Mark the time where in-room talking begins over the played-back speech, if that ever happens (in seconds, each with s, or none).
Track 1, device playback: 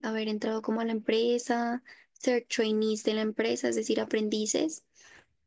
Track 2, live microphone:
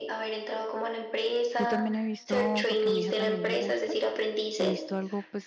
1.6 s